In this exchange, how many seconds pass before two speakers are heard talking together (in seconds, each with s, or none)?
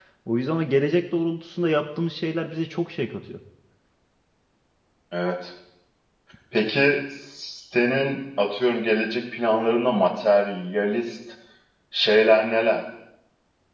none